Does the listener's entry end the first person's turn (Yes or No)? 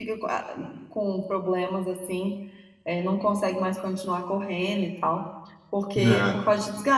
No